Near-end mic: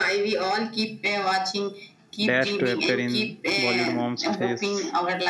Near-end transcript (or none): dares to appear in Bollywood mom's face.